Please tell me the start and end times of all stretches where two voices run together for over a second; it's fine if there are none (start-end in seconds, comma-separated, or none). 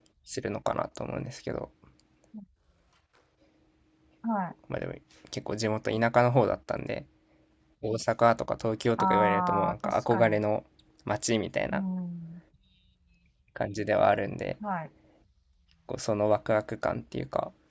9.0-10.4